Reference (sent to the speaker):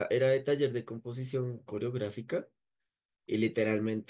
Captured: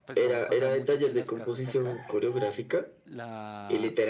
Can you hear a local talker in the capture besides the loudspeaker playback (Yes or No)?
Yes